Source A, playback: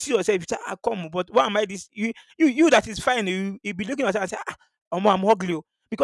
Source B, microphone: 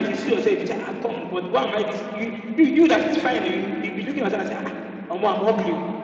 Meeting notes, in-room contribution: none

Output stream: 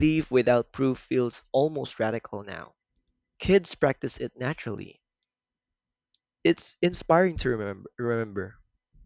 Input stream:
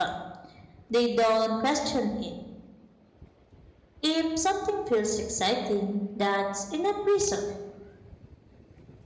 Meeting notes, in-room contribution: present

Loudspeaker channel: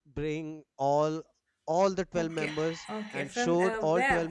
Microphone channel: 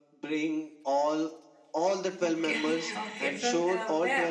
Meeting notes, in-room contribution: present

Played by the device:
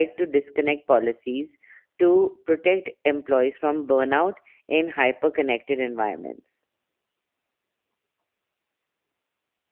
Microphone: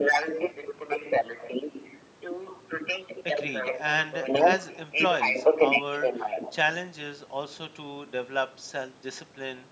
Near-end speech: present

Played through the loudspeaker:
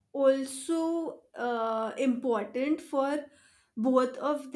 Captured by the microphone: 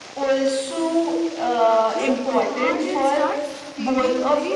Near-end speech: present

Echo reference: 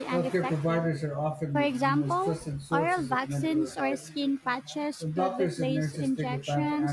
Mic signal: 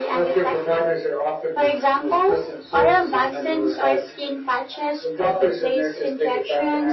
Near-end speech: none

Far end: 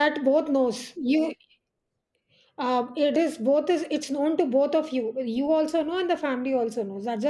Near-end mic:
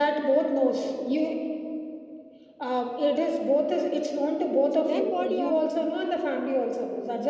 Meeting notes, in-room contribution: present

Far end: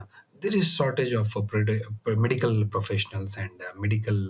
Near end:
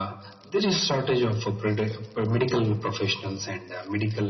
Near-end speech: none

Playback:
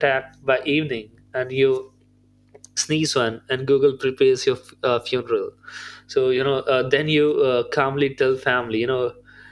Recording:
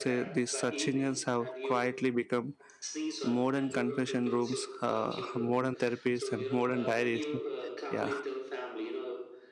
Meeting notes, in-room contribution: present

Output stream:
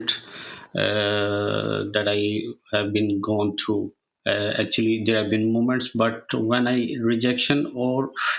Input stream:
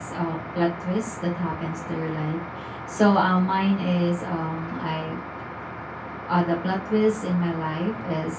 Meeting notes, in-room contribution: present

